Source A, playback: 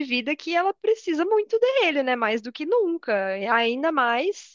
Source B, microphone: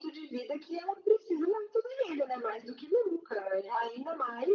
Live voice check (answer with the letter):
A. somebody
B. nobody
B